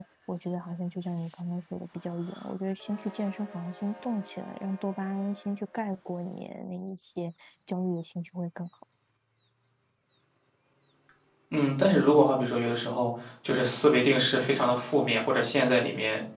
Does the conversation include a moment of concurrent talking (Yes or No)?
No